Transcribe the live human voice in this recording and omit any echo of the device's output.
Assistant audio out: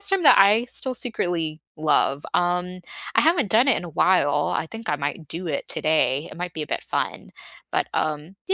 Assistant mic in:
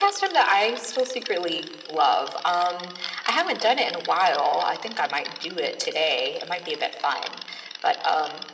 none

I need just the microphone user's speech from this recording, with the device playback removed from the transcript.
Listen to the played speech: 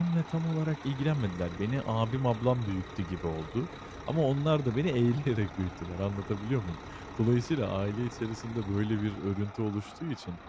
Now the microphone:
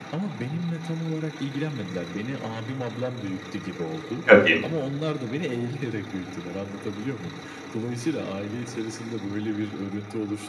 Tabii.

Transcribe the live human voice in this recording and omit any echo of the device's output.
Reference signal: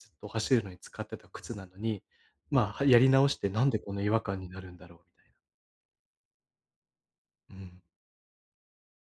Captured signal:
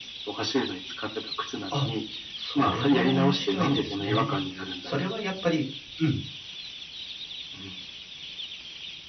あ、それは面白いですね。それはやっぱりうん、

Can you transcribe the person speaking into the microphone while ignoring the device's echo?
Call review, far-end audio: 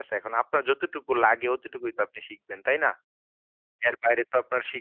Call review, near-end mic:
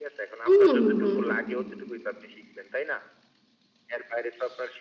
হুম, হুম, হুম, হুম।

